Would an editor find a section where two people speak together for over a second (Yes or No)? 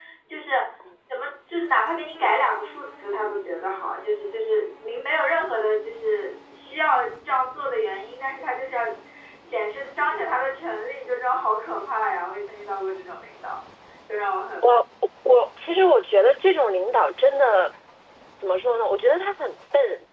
No